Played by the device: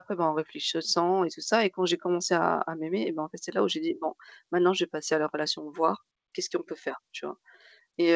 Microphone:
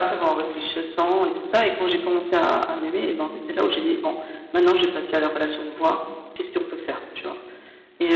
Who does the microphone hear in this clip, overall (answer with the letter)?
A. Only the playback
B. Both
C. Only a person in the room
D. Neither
A